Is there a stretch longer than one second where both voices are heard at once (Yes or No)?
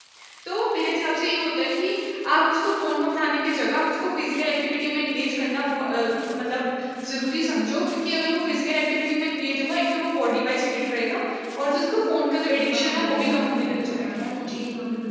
Yes